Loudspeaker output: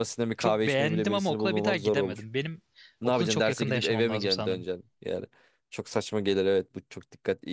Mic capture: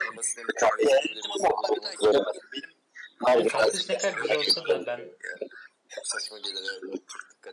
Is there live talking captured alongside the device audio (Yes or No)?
Yes